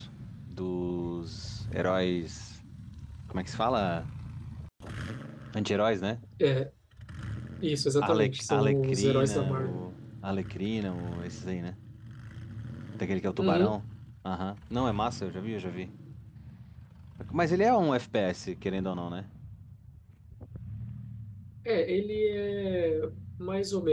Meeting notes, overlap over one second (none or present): present